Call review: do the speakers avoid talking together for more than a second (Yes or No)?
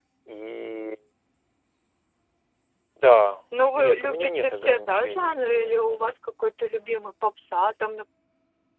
No